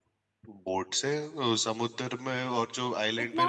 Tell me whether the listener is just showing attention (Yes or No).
No